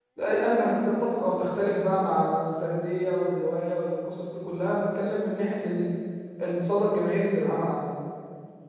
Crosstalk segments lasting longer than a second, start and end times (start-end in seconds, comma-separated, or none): none